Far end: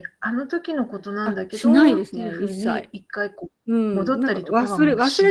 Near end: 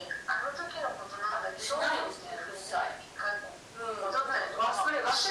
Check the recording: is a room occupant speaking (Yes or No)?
No